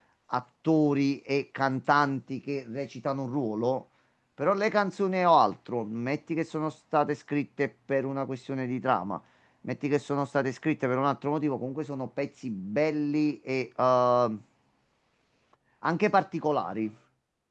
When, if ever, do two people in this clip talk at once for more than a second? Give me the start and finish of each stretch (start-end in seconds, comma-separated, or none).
none